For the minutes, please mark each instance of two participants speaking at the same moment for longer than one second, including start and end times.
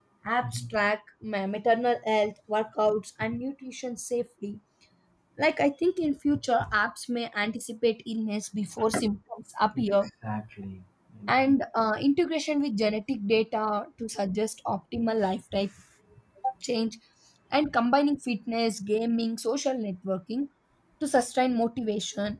none

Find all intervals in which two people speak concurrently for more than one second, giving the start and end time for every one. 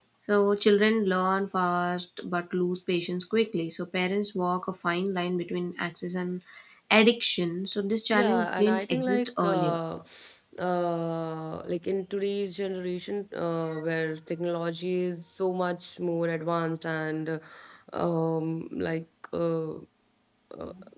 8.1-9.8

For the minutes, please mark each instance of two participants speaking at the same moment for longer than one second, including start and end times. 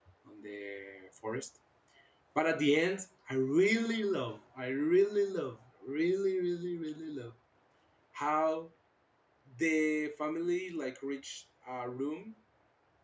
none

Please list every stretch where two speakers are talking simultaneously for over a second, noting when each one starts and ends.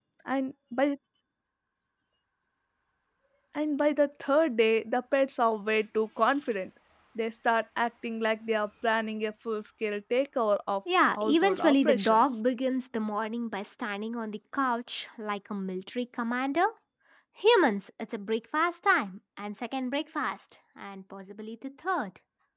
11.1-12.3

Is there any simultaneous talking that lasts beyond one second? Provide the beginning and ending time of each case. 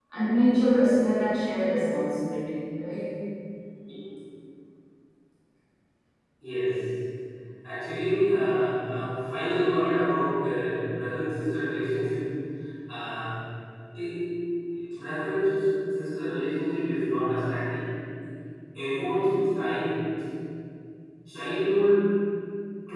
none

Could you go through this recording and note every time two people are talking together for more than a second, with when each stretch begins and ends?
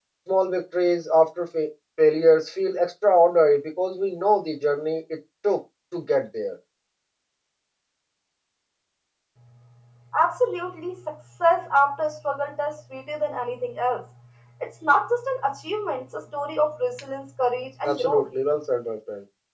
none

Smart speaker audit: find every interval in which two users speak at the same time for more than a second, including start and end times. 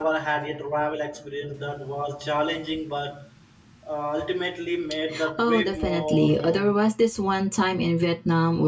5.4-6.8

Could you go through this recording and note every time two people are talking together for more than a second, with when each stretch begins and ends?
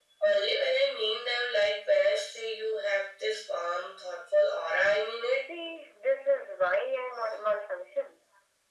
none

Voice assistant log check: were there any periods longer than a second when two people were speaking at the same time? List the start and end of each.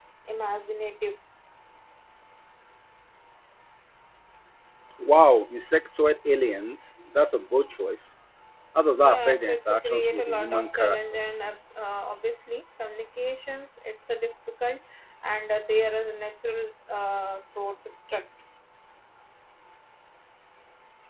9.1-11.4

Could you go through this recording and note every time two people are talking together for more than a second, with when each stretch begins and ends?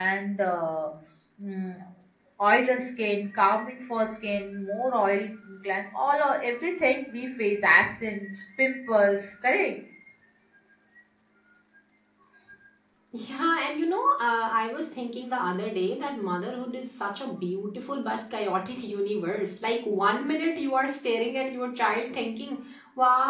none

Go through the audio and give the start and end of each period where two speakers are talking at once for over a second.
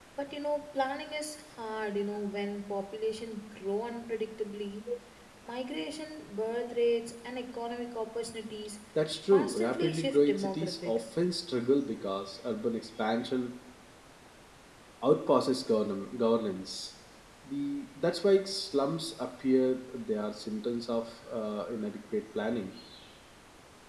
9.3-11.0

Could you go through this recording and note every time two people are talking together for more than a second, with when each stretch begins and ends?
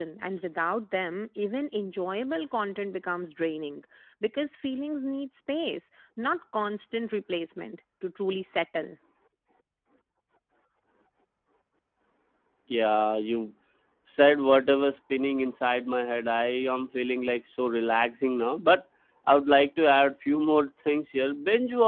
none

